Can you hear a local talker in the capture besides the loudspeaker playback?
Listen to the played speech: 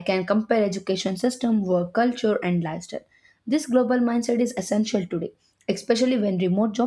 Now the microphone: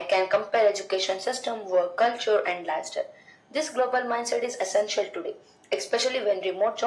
No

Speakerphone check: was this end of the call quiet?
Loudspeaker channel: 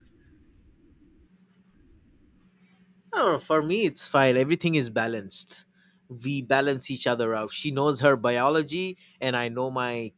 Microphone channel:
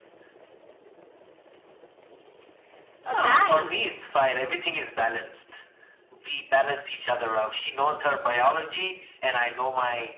No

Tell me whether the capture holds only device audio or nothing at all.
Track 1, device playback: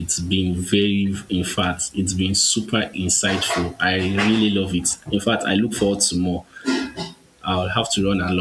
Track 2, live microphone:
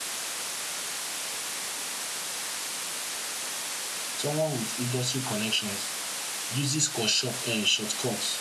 No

